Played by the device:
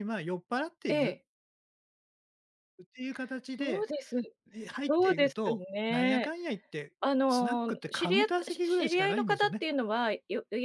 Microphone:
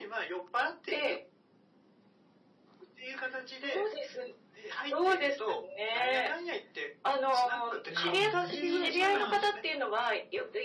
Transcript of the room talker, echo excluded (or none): ええ、で、まあ、